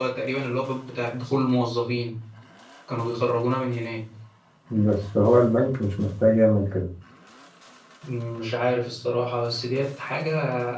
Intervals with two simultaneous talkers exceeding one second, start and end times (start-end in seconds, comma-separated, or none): none